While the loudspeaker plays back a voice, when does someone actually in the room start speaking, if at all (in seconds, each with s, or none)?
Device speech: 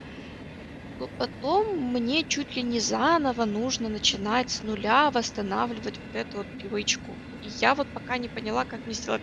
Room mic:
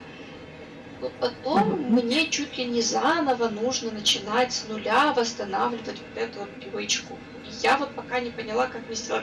1.5 s